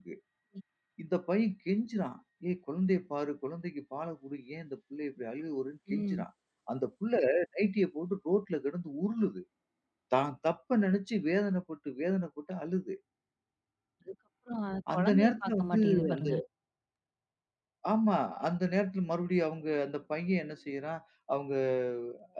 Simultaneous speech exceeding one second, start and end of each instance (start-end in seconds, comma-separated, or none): 14.9-16.3